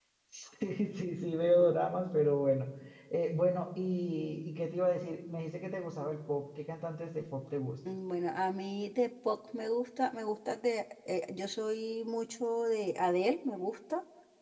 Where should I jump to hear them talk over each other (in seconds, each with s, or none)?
none